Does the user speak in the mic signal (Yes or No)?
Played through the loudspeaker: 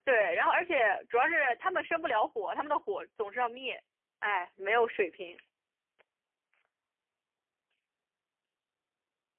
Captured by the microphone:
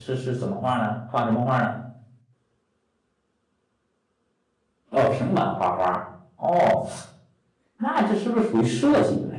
Yes